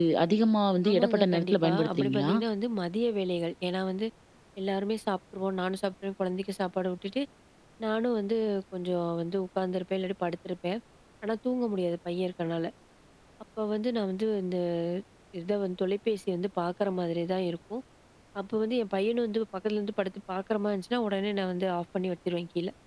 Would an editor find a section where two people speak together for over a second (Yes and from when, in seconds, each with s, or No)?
Yes, from 0.9 s